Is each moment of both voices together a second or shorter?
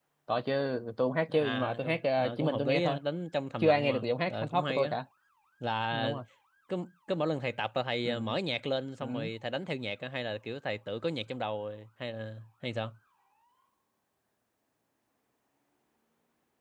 No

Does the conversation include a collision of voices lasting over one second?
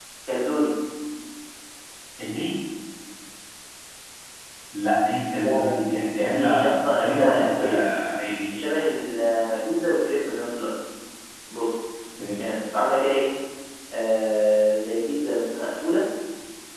Yes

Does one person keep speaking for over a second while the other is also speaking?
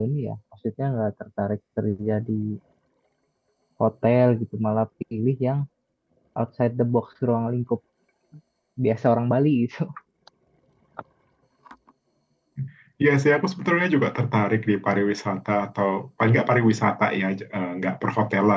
No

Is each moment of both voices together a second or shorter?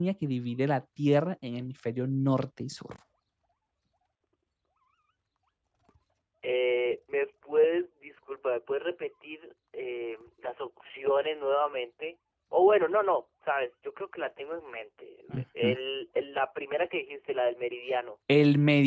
Yes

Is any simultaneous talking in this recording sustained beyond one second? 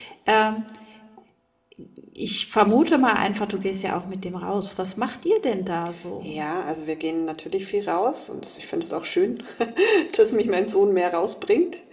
No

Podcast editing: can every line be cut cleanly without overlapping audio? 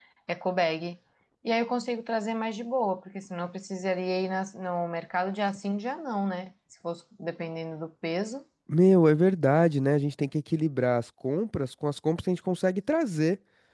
Yes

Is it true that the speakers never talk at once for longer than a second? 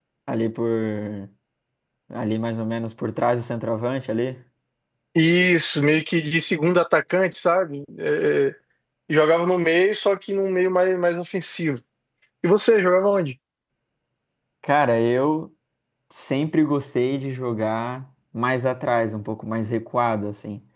Yes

